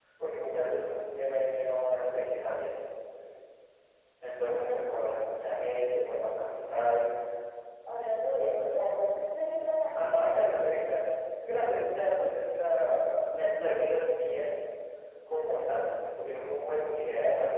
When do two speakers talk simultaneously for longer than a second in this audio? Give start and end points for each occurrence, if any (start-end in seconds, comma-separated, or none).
none